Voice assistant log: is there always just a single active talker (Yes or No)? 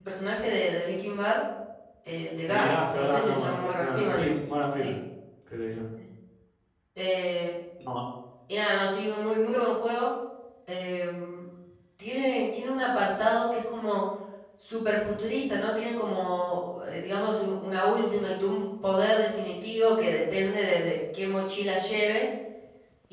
No